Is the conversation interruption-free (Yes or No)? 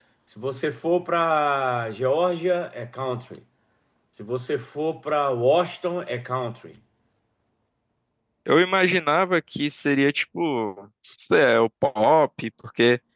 Yes